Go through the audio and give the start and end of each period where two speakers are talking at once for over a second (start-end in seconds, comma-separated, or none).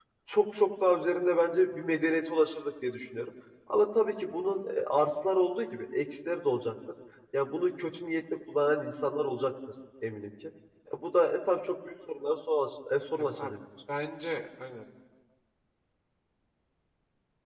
none